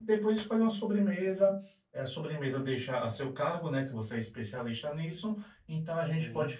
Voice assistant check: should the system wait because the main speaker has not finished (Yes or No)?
Yes